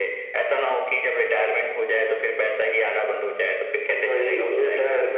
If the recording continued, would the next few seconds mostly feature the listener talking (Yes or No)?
Yes